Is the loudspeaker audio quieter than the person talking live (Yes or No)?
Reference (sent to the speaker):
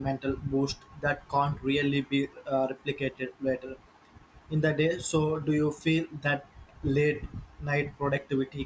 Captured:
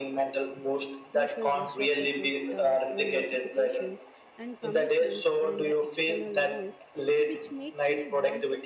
No